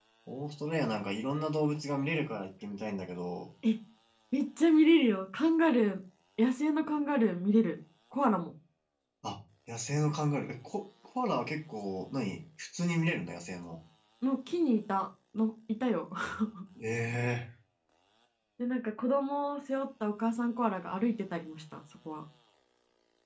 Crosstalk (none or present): none